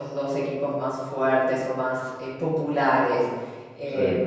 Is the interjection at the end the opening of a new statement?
No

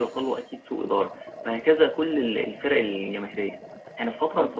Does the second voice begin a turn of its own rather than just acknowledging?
No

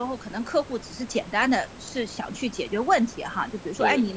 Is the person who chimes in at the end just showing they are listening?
Yes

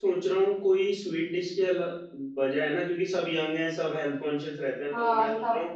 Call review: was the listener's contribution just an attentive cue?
Yes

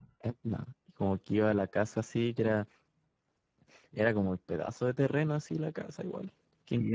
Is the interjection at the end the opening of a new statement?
Yes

